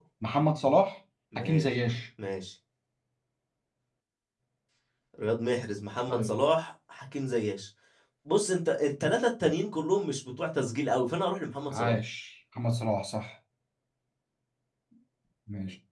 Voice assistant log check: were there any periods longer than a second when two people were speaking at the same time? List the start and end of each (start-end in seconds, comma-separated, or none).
none